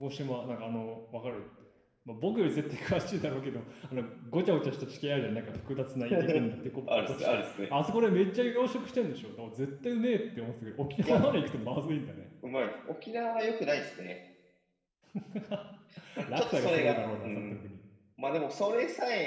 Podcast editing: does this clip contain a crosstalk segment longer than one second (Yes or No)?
Yes